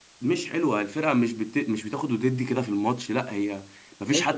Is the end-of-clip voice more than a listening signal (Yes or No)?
Yes